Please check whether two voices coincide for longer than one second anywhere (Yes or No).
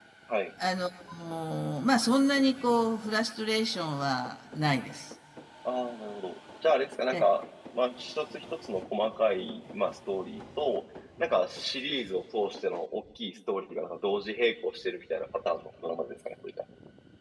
No